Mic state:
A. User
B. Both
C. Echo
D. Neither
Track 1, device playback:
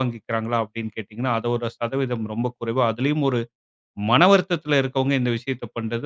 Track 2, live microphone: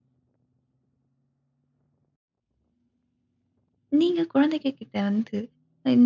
A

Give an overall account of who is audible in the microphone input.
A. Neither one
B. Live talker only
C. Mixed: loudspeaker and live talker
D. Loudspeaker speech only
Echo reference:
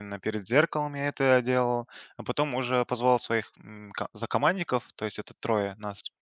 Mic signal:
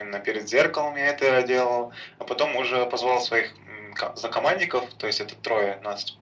D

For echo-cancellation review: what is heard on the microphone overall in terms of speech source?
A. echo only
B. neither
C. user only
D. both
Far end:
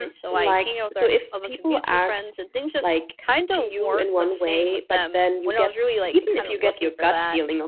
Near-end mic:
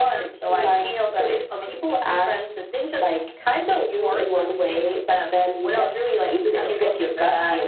A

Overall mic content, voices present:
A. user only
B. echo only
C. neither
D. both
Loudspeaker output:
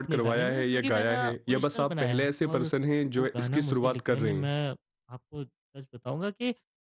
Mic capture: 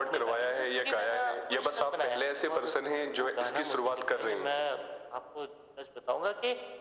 B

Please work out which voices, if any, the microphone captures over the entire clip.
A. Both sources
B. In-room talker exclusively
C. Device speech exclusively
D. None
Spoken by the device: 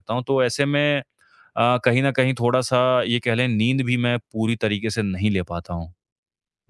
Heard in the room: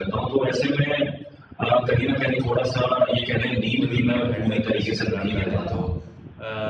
A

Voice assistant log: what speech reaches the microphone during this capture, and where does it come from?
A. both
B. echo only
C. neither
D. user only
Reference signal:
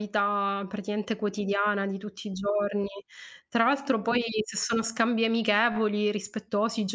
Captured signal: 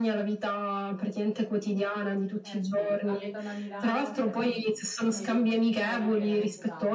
A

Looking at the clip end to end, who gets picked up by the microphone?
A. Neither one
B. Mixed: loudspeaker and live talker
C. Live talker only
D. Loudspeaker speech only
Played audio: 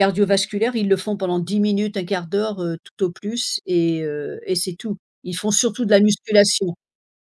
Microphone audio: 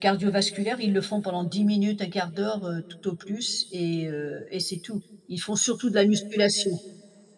D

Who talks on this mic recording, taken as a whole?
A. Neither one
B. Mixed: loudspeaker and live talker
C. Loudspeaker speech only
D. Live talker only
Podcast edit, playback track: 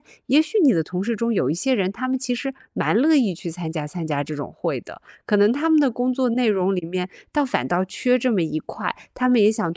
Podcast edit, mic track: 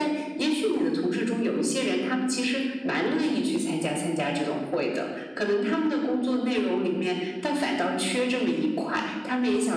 C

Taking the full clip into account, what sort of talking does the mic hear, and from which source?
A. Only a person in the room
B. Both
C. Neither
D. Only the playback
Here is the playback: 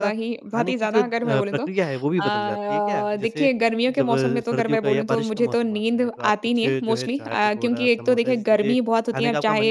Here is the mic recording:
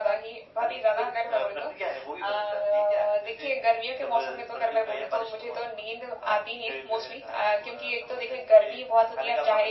D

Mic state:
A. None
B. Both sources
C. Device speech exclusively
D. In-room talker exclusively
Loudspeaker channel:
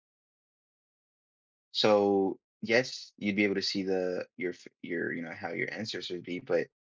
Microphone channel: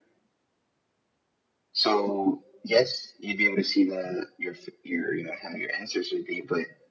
C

